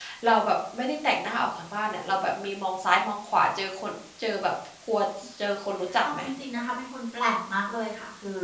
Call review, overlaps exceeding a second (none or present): none